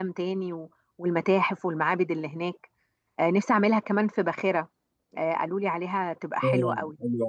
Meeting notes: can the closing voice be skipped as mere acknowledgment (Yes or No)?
No